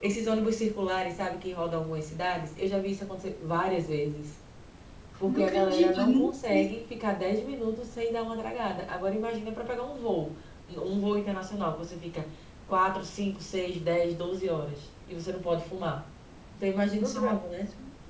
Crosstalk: present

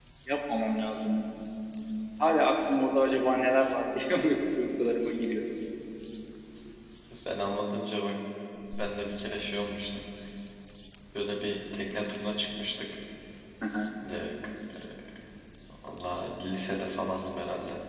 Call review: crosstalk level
none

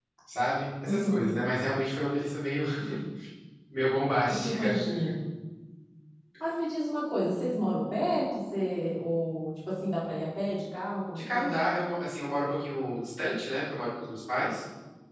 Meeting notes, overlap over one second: none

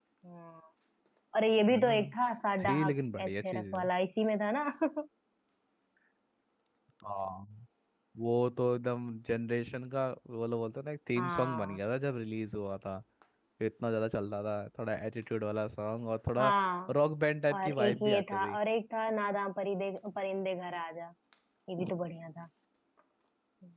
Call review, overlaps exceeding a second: present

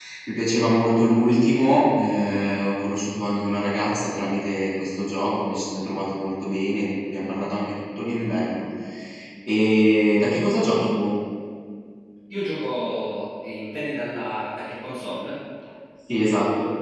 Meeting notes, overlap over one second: none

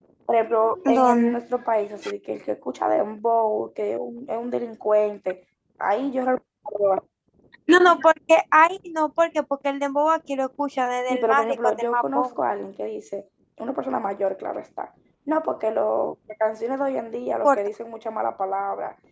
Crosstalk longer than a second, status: present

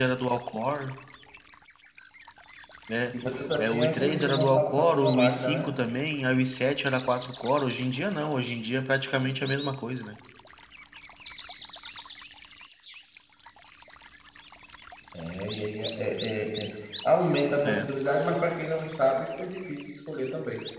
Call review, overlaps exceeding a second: present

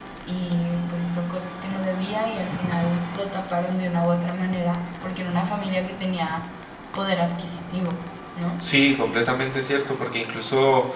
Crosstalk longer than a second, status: none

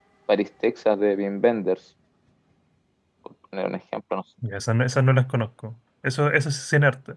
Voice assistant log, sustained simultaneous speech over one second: none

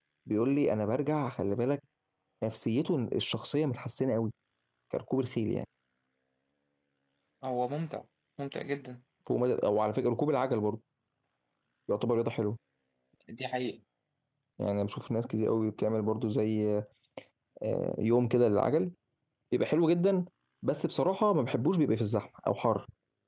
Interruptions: none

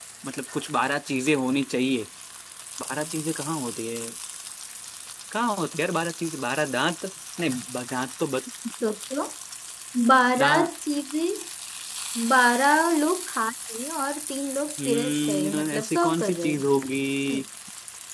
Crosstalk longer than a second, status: present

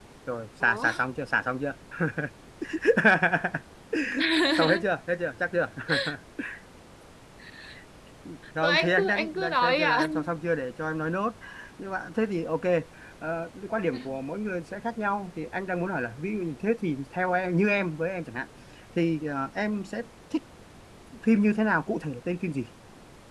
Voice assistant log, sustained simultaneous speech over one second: present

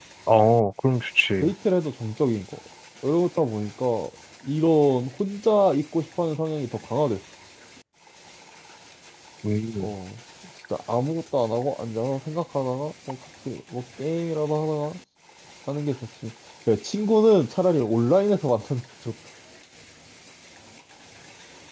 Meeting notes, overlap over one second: none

